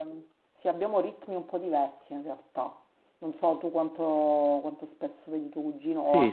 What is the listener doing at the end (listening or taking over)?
taking over